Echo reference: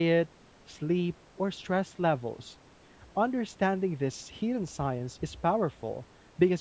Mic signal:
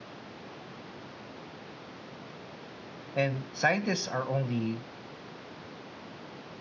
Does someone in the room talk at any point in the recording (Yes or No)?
Yes